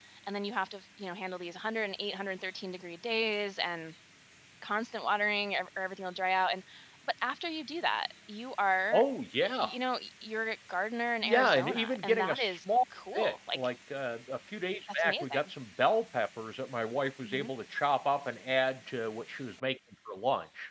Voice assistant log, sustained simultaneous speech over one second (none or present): present